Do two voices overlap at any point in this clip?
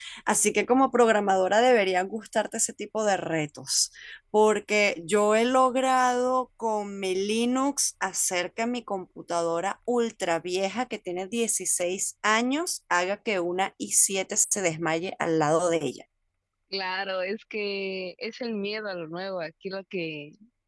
No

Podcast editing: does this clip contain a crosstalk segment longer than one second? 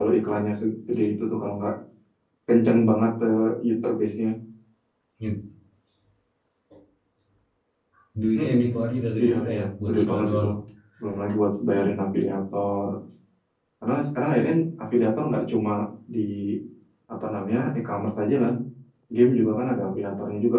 Yes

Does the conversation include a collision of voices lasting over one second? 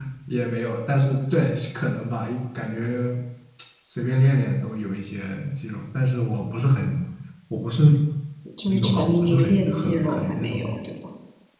Yes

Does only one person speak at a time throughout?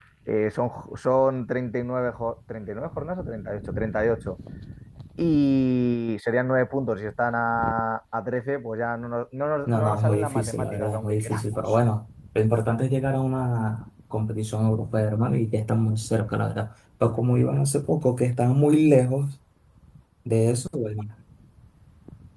No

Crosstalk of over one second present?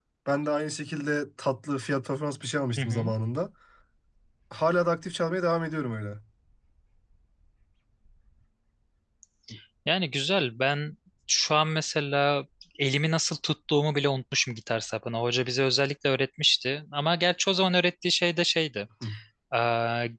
No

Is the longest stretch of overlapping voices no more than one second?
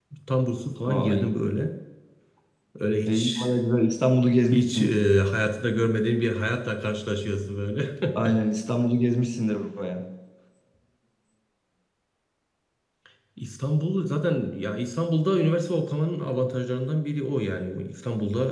Yes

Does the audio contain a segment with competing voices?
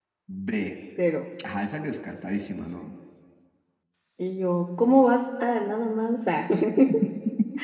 No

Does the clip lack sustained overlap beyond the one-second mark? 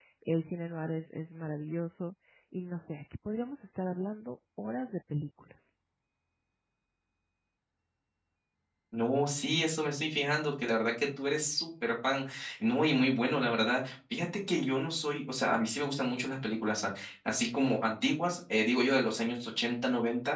Yes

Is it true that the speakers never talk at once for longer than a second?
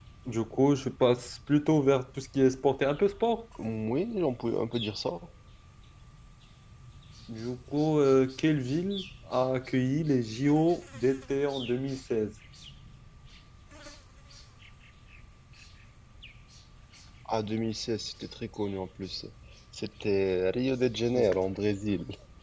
Yes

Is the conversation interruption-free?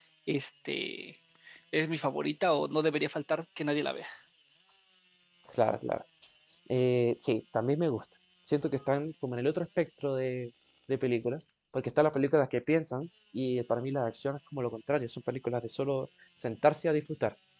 Yes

